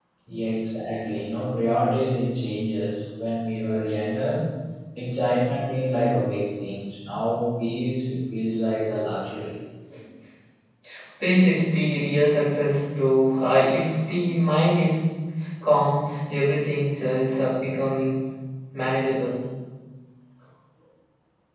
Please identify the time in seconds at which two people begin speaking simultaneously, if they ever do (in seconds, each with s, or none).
none